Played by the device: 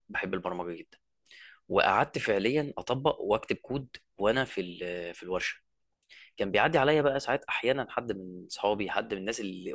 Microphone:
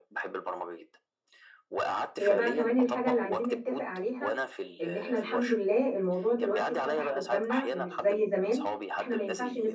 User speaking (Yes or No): Yes